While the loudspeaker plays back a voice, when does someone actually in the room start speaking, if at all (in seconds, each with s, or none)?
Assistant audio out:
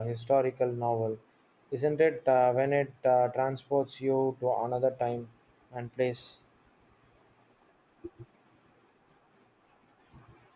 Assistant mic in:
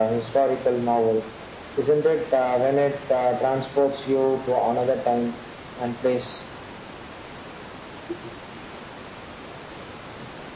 none